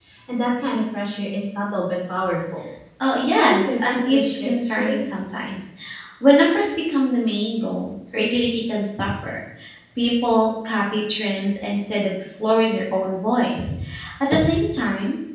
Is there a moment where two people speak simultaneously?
Yes, from 3.4 s

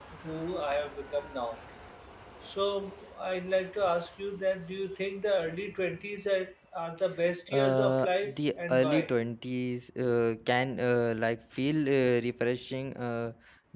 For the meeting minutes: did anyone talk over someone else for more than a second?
Yes, from 7.5 s

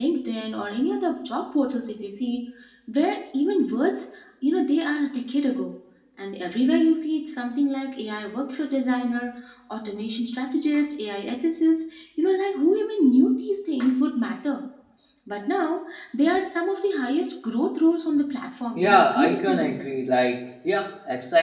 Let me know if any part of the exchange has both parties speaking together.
Yes, from 18.8 s

